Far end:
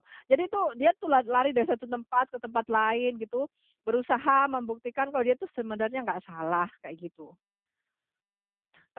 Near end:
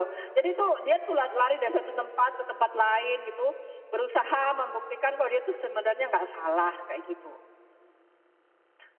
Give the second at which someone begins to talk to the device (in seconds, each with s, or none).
none